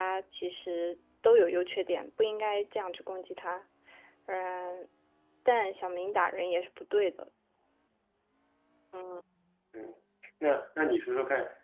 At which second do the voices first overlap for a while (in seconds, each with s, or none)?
none